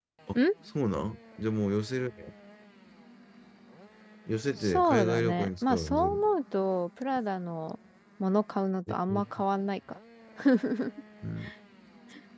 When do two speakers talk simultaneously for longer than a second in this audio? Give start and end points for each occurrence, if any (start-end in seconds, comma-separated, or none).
4.6-6.3